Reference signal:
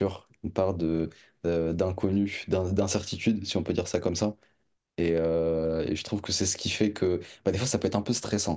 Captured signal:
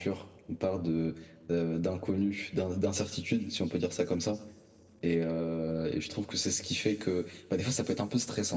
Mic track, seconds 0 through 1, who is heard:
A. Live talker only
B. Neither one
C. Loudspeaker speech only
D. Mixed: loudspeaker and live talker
C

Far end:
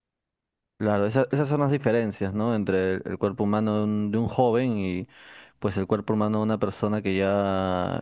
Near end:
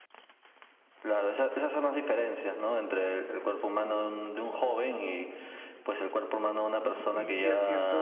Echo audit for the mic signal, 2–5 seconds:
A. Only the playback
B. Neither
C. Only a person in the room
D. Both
A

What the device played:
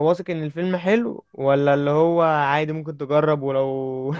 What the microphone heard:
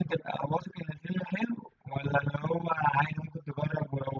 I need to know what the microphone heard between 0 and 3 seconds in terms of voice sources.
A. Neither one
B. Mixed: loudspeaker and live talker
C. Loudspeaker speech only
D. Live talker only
C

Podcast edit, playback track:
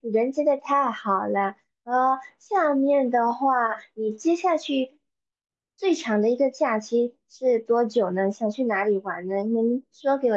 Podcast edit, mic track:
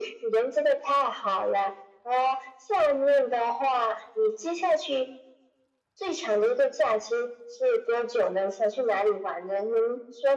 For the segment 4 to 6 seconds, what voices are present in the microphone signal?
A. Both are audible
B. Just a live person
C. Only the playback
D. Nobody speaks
C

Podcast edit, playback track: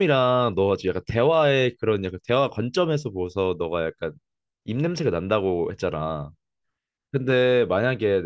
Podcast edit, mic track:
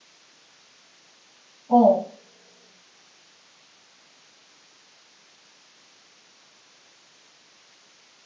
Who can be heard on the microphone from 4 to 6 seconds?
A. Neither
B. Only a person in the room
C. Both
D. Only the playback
A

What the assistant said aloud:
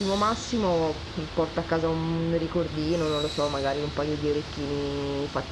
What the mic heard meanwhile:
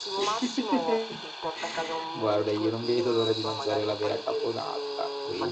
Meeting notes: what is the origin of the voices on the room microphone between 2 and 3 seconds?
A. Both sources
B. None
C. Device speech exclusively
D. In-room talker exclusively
A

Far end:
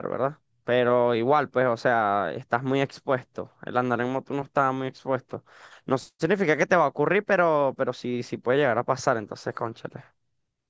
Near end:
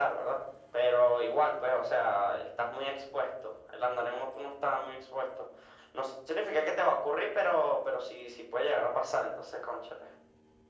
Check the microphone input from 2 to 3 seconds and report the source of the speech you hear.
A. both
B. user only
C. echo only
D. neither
C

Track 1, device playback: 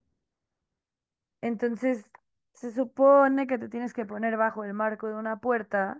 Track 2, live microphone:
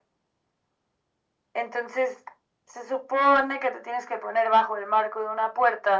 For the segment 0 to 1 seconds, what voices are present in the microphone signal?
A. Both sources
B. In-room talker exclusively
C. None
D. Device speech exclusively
C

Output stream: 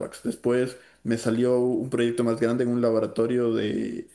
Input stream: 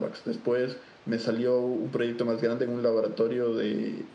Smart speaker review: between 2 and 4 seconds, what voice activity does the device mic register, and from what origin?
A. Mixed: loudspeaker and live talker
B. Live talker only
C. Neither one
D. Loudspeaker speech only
D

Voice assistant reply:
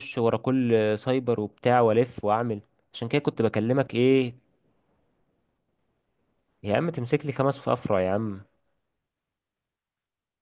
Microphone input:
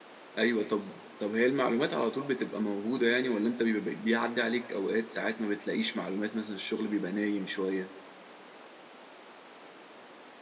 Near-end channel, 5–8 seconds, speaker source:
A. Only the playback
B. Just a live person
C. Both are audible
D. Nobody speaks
B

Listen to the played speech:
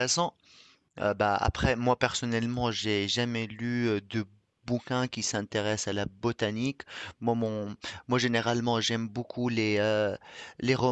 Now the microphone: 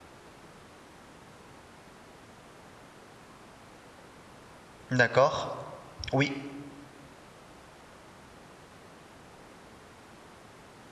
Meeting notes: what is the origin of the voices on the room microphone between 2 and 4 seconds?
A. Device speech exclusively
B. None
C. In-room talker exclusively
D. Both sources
B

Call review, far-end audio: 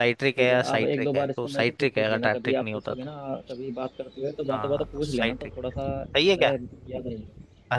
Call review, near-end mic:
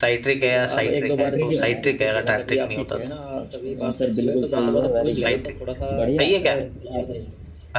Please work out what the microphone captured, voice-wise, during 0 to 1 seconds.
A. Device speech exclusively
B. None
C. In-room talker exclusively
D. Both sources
A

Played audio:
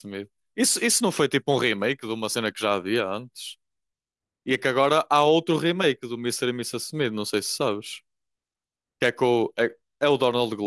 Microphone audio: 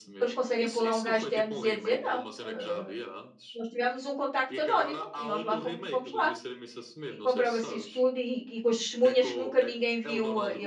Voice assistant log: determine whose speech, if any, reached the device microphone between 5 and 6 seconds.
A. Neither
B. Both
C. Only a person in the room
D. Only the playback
B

